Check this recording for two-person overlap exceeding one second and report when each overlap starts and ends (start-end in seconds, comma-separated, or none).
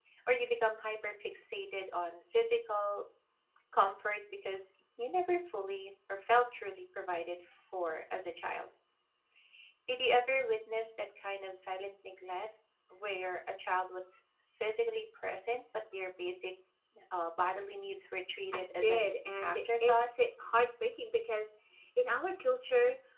18.5-20.1